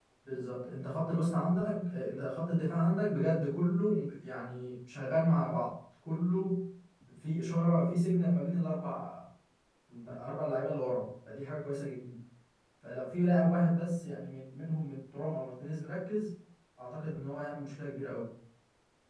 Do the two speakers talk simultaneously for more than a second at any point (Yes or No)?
No